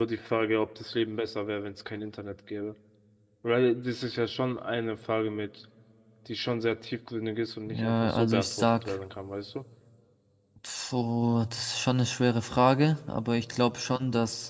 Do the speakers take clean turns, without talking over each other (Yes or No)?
No